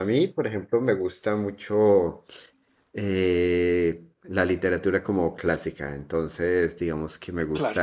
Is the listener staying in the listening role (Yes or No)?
Yes